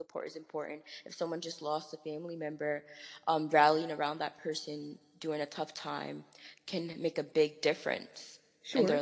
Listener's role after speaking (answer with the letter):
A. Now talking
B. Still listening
A